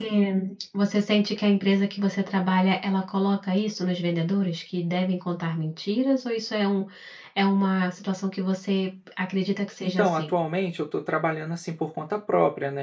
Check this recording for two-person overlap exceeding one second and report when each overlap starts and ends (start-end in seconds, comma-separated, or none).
none